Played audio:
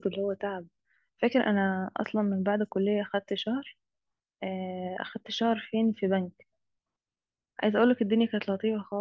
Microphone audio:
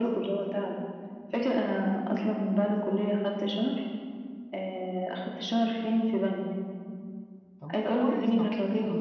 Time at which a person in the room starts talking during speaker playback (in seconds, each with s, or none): 7.6 s